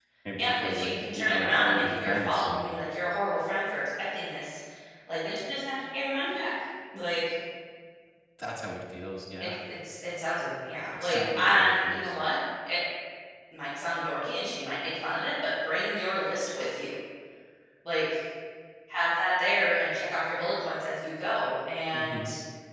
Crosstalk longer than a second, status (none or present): present